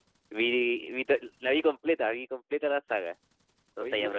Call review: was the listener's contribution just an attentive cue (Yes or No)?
Yes